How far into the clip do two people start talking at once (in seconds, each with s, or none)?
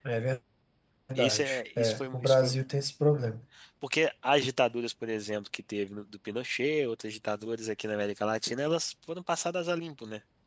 1.1 s